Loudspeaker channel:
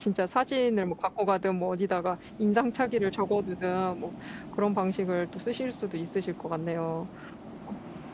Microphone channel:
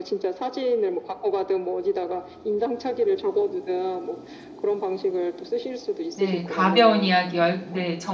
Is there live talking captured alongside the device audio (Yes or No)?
Yes